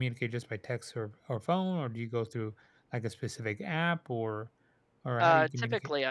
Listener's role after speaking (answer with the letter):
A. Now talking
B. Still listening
A